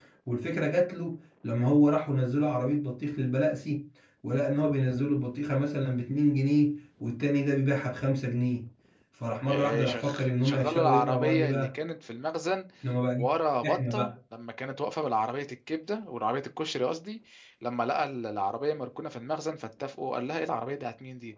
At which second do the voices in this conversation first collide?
9.5 s

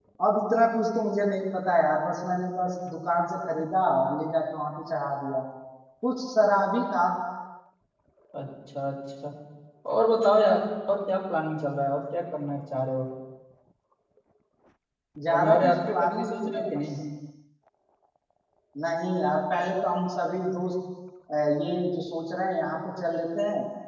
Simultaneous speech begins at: 15.3 s

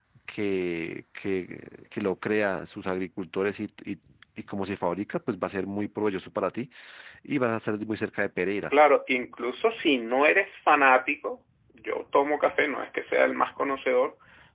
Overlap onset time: none

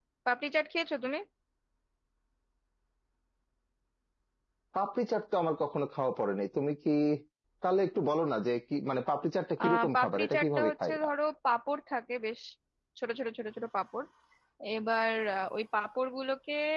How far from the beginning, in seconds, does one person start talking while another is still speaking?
9.6 s

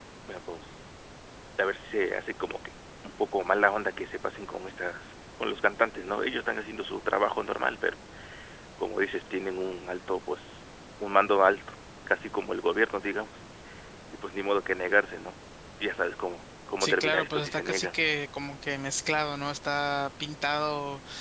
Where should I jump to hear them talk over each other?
16.8 s

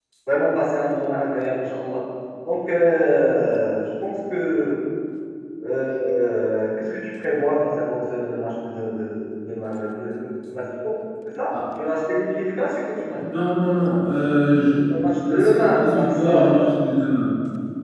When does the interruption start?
14.9 s

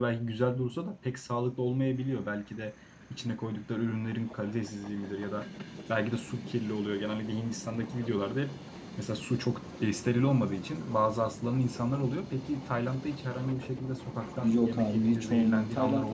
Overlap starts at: 14.4 s

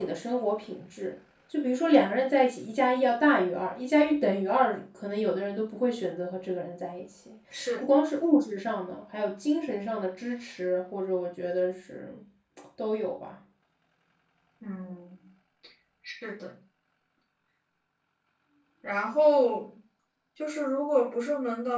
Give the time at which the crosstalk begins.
none

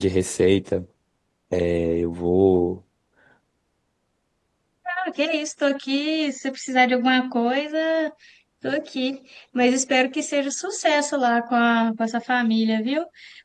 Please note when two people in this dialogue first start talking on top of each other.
none

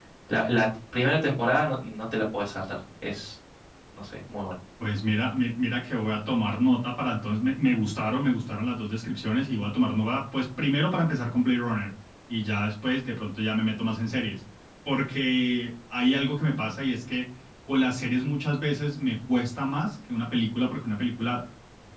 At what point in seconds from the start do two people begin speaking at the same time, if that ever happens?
none

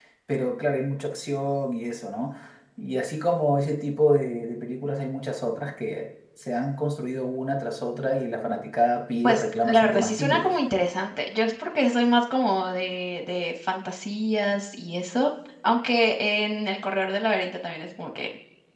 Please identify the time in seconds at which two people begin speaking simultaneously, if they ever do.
9.2 s

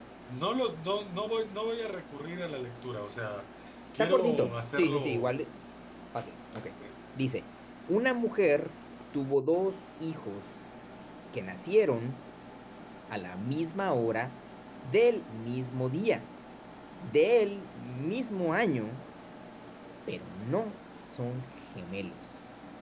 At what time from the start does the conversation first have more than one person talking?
4.0 s

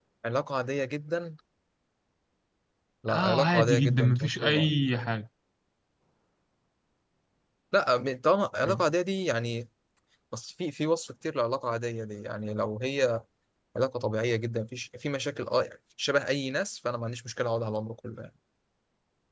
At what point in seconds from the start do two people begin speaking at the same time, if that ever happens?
3.1 s

